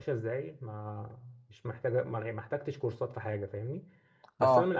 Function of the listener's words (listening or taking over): listening